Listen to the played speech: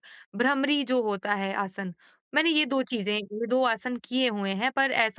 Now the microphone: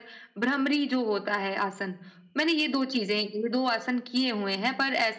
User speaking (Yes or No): No